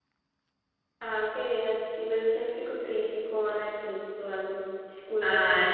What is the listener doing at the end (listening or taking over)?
taking over